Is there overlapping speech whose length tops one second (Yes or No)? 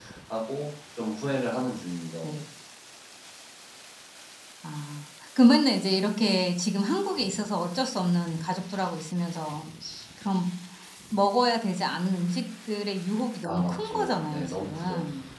Yes